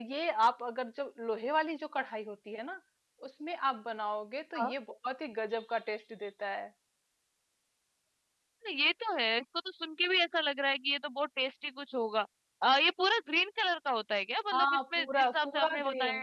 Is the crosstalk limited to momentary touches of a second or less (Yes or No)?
No